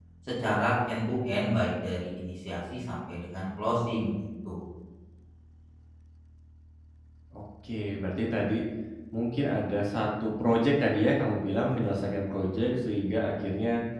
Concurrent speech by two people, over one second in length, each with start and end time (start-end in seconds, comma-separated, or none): none